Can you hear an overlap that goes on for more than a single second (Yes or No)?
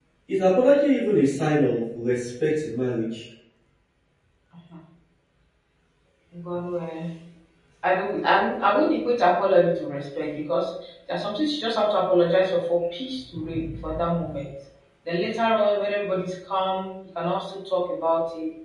No